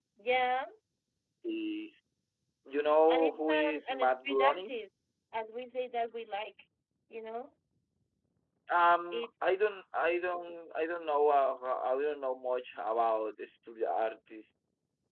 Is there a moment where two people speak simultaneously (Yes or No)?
Yes